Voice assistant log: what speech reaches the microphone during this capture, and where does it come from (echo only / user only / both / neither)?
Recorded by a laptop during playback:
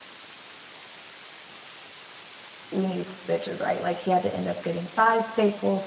user only